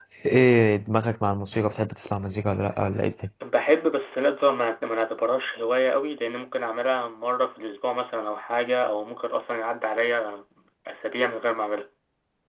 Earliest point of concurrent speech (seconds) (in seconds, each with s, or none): none